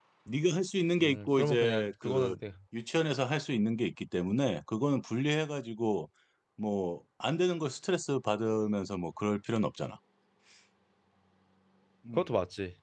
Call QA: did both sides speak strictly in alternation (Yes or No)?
No